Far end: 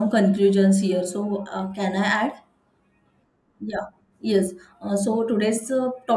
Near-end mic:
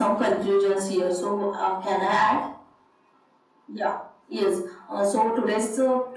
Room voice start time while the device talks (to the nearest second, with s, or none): none